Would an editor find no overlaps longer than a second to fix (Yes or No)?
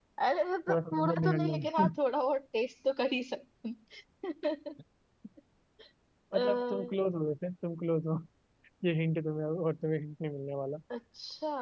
No